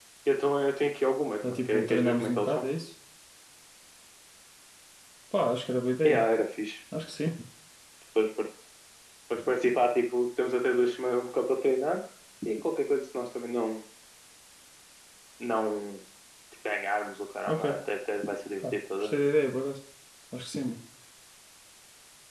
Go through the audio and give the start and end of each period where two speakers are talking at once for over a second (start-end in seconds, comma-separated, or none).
1.4-2.6